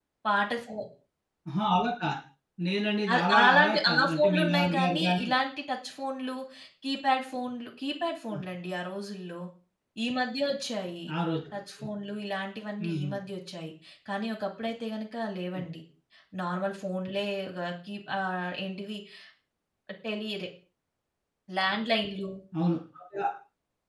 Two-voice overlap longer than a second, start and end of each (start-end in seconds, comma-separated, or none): 3.1-5.3